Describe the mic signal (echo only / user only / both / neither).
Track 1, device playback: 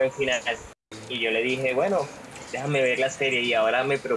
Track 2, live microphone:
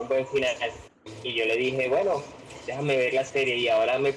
echo only